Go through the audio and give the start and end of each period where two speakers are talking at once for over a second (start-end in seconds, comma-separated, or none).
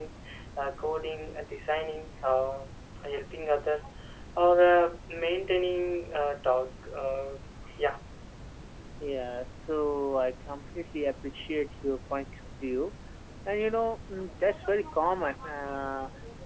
none